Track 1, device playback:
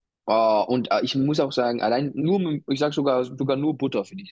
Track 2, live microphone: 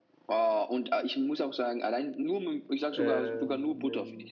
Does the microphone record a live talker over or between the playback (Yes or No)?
Yes